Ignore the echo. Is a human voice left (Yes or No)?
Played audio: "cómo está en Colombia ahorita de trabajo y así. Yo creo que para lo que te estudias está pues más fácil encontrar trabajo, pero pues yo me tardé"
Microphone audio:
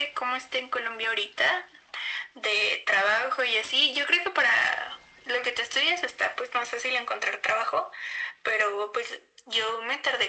No